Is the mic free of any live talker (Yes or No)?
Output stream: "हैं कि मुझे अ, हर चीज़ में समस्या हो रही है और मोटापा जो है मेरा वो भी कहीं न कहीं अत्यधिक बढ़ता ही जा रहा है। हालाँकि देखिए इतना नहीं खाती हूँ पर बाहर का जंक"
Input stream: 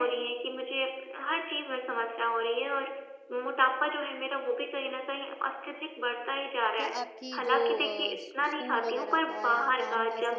No